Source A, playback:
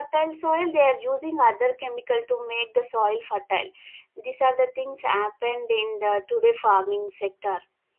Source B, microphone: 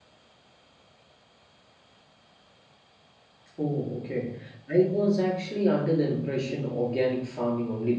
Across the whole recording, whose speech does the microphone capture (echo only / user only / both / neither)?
user only